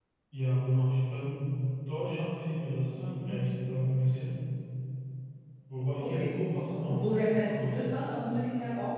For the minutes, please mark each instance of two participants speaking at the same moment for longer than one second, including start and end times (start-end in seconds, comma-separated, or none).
6.8-8.3